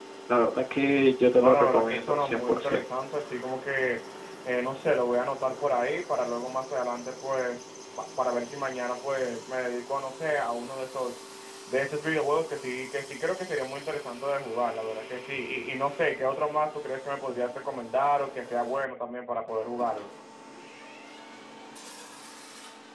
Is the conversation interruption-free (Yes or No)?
No